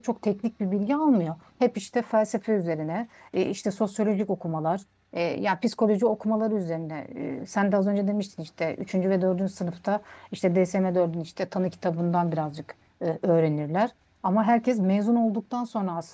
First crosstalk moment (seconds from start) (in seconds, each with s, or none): none